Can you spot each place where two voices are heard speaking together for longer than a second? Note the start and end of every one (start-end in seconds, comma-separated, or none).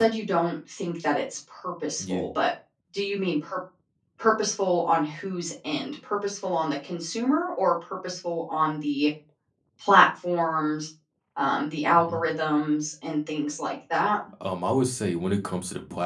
none